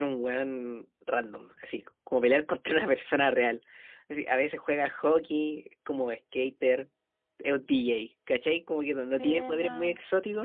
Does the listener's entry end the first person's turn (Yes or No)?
Yes